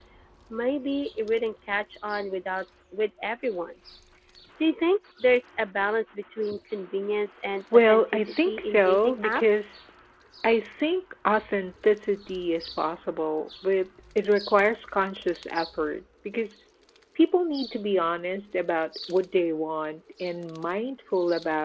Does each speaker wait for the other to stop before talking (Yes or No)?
No